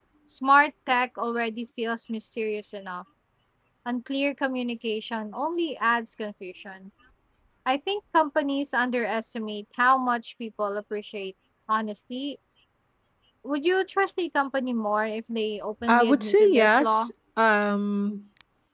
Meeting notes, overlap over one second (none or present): present